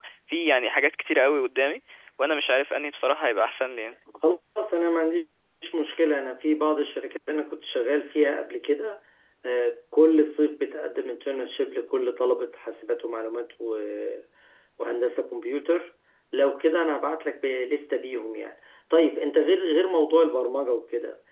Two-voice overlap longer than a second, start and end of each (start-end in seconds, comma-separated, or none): none